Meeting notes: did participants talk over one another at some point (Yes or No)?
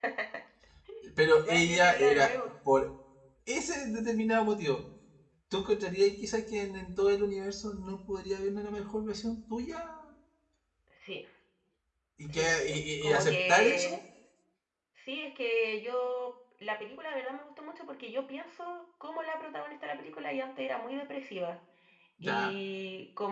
Yes